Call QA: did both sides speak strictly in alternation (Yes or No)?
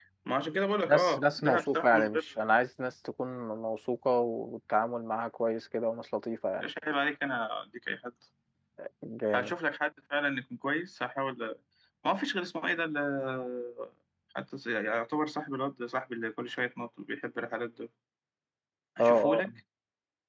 No